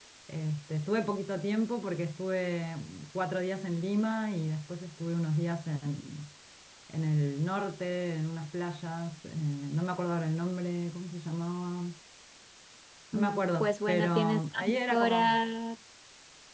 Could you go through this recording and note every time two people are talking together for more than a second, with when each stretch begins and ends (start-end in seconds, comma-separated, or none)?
13.1-15.4